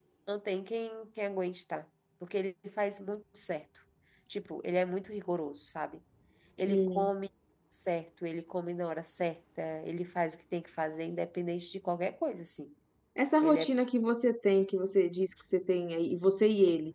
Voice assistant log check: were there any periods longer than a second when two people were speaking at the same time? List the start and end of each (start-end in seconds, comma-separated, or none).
none